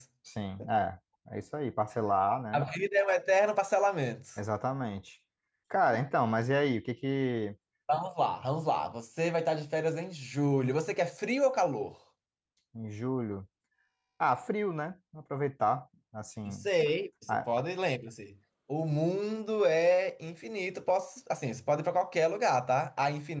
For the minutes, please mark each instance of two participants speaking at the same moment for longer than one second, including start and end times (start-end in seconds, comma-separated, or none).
none